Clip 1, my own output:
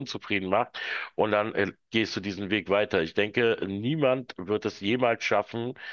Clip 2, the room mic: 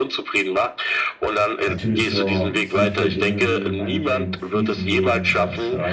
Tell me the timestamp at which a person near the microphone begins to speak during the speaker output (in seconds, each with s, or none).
1.6 s